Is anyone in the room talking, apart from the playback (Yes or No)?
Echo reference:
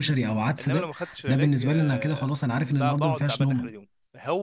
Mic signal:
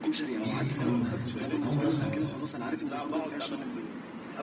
Yes